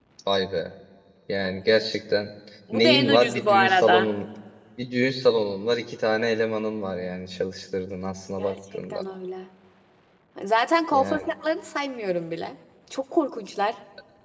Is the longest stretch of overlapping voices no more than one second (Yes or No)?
No